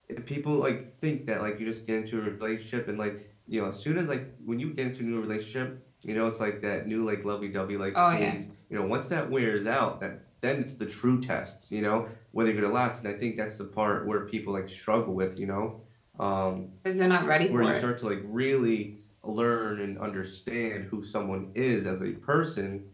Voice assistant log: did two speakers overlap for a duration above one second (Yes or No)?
No